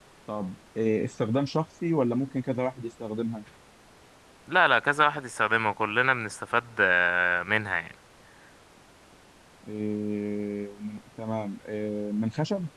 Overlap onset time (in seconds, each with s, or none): none